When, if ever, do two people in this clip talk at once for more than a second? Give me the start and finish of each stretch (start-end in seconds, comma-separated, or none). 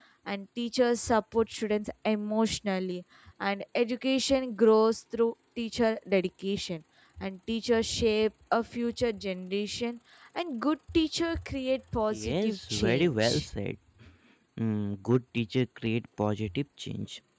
12.1-13.5